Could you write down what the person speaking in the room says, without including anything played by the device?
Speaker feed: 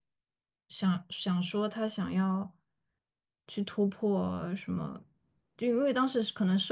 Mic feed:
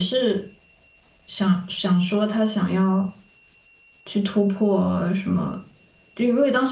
none

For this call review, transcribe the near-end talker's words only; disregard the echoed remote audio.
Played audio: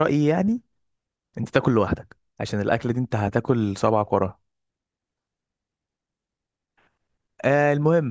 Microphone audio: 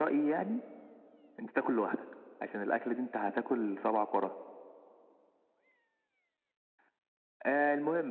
none

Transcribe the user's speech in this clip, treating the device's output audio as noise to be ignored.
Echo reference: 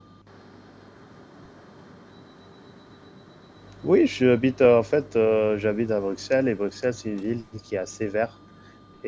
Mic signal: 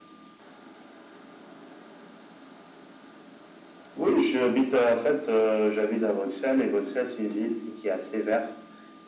none

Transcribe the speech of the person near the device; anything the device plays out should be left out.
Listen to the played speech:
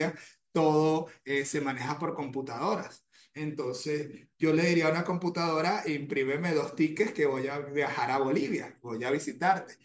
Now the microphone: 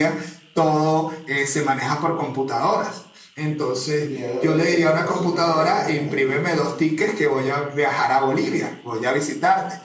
Miedo de que te consuman las llamas a ti también.

